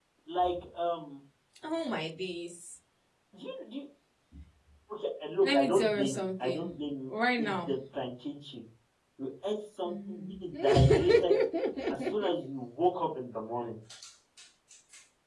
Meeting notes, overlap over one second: present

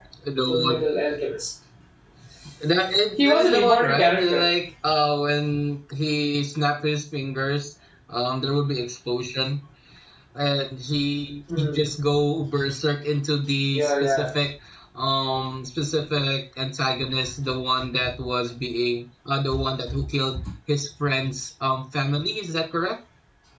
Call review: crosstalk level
present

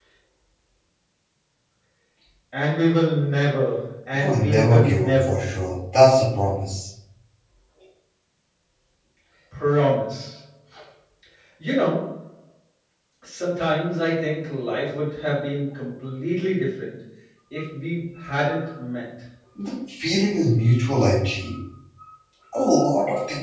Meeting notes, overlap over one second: present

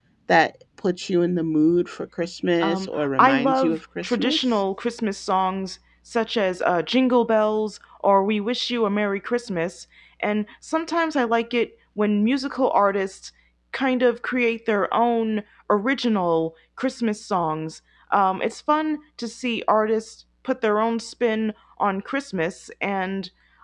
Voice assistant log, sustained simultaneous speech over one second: present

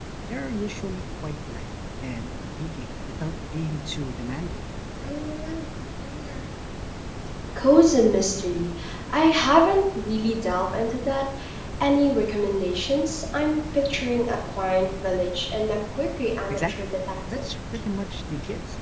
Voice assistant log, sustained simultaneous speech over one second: none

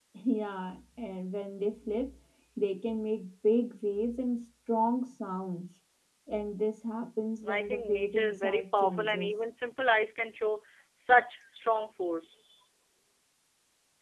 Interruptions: present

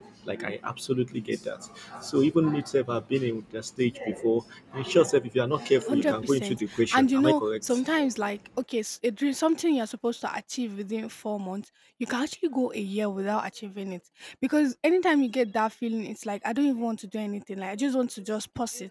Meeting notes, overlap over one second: present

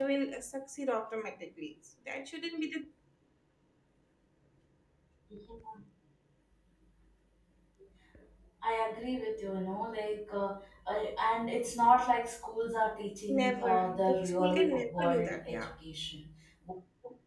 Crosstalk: present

